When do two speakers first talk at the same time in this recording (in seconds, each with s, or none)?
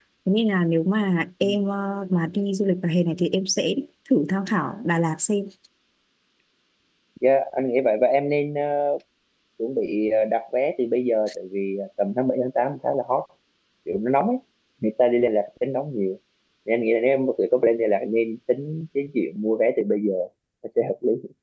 none